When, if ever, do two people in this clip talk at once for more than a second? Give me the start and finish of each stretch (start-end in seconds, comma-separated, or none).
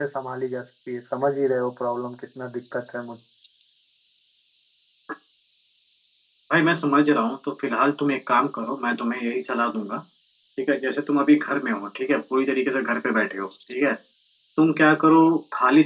none